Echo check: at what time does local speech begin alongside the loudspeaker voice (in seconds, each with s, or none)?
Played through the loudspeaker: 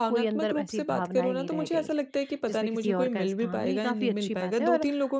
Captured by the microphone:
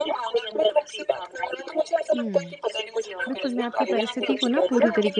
2.1 s